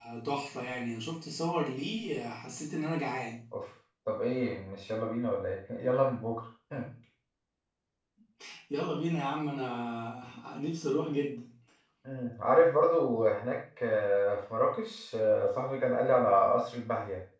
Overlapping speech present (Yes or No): No